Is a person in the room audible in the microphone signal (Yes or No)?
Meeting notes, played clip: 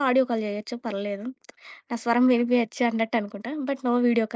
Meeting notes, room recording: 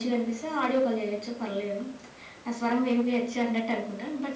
No